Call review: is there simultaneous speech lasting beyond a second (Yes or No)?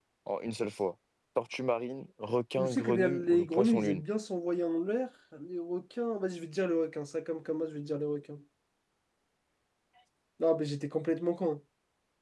Yes